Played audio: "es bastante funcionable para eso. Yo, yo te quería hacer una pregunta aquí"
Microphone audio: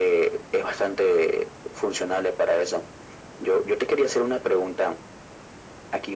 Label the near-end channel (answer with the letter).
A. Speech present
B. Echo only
B